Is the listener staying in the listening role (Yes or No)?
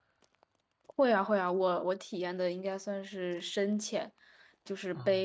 Yes